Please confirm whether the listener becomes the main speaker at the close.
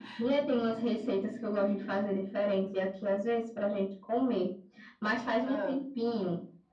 No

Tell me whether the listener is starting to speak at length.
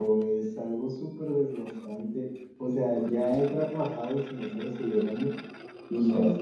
No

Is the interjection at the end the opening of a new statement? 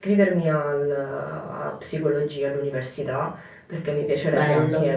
No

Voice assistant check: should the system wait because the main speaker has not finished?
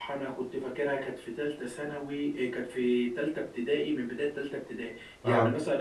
Yes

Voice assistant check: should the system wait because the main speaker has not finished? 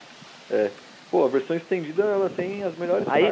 No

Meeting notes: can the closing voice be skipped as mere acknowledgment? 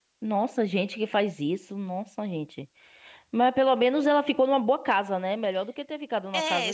No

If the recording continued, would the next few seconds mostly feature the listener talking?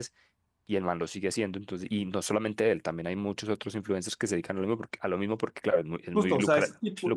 Yes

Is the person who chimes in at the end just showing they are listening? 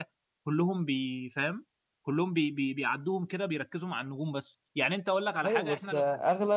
No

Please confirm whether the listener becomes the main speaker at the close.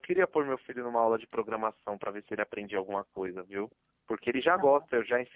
No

